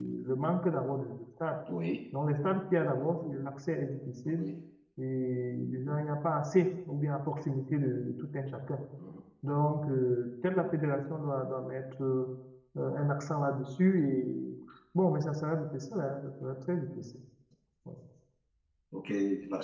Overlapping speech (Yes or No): No